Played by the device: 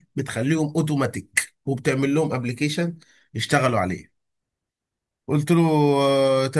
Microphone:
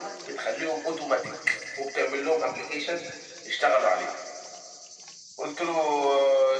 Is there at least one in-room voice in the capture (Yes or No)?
No